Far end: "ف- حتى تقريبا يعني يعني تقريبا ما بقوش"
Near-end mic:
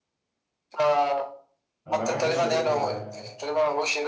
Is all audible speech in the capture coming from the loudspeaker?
No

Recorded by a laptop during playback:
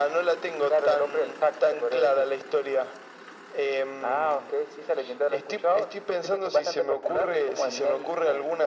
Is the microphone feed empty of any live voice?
Yes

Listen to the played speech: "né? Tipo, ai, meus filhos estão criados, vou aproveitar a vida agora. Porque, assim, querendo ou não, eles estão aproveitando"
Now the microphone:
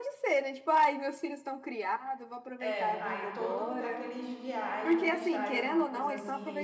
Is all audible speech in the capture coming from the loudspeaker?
No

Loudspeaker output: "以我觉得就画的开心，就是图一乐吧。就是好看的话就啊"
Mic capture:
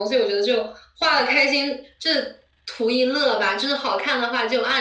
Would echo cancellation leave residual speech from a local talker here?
No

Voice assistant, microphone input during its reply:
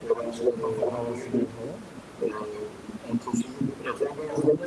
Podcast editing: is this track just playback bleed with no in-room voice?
No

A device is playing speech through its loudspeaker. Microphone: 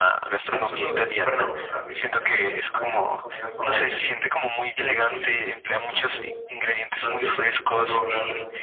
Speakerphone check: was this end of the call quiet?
No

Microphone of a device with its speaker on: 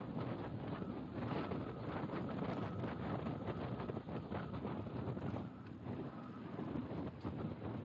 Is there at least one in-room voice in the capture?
No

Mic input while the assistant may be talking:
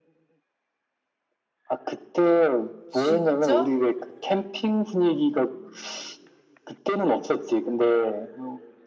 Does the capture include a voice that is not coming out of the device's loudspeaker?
Yes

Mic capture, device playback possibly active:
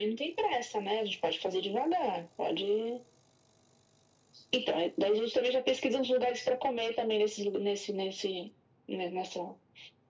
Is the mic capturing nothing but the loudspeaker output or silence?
Yes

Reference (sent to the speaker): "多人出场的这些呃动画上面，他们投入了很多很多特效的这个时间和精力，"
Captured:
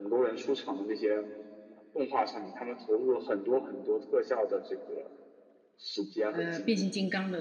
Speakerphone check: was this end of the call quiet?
No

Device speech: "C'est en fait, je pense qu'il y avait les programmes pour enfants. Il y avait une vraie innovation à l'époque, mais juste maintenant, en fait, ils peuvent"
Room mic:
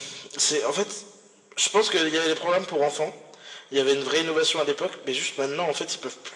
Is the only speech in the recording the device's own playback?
Yes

